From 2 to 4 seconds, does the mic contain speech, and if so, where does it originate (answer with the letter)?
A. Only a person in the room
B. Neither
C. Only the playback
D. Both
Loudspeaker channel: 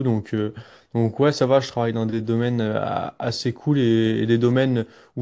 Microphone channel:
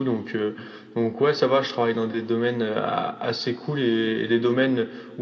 C